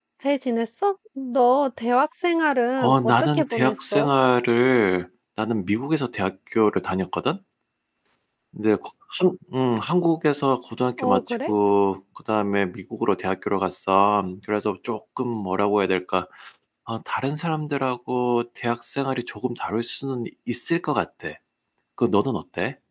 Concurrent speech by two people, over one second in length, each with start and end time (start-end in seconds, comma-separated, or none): 2.8-4.1